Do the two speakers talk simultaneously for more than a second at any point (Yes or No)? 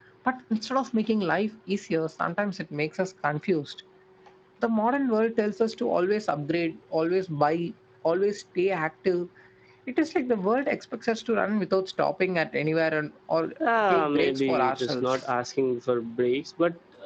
Yes